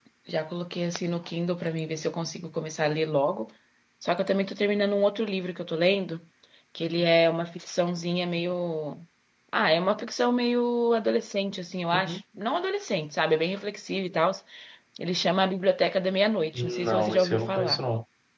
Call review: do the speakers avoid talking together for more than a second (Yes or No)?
No